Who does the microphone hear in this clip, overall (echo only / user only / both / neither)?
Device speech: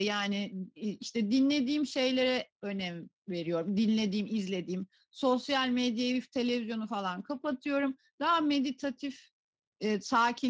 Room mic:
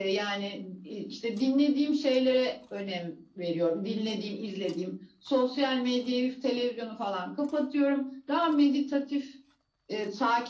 echo only